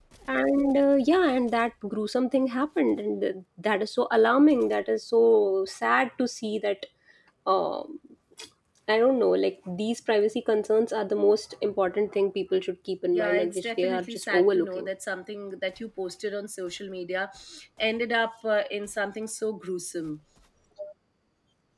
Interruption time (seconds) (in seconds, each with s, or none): 13.1 s